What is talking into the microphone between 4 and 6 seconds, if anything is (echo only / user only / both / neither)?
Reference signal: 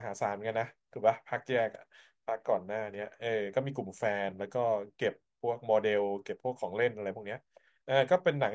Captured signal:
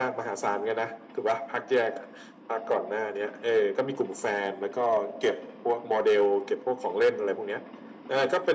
echo only